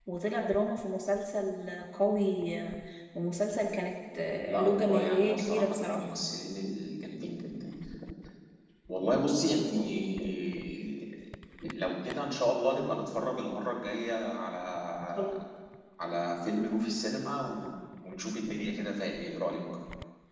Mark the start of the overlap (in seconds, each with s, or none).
4.4 s